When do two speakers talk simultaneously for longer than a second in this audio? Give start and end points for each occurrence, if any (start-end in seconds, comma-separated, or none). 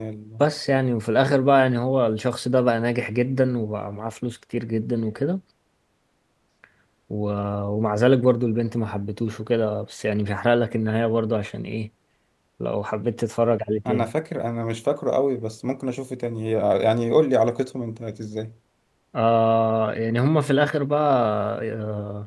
none